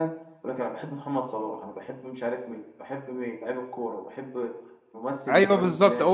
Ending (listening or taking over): taking over